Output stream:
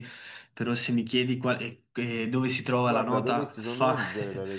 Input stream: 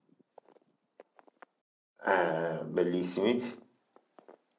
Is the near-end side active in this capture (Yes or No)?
Yes